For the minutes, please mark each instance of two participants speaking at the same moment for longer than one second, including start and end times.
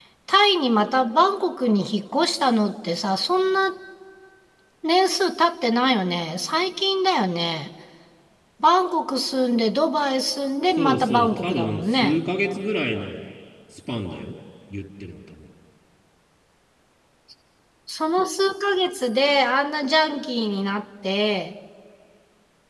10.8-12.2

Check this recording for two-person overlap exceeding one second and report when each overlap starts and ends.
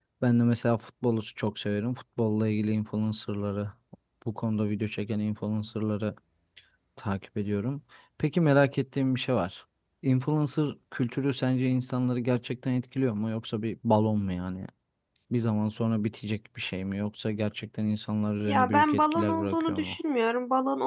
18.5-20.0

